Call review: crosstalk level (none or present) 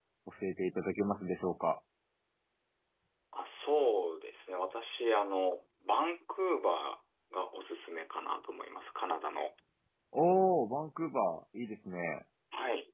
none